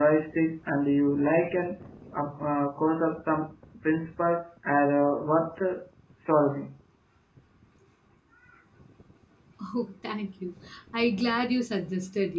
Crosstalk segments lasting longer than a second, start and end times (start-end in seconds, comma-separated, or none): none